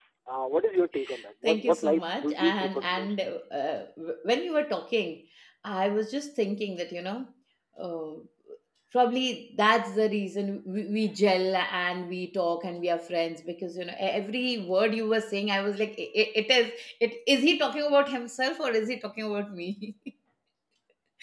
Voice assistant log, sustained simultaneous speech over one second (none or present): present